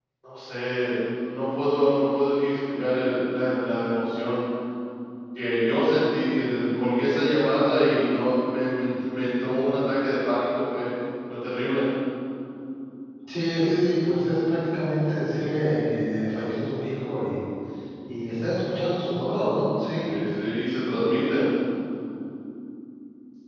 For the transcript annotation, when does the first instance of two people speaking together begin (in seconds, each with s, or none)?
none